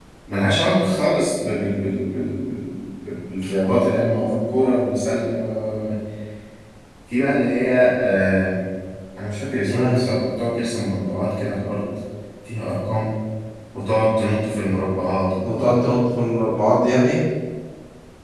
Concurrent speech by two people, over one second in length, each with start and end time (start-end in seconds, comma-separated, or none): none